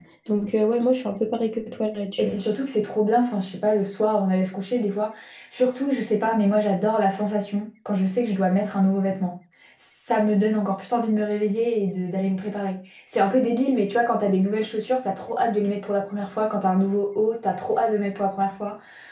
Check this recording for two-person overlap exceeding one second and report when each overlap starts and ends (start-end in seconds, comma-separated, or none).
none